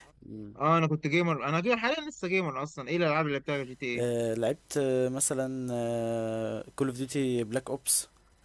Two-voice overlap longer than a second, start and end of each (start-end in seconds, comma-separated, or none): none